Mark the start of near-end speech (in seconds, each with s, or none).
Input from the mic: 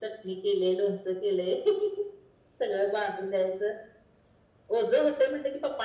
none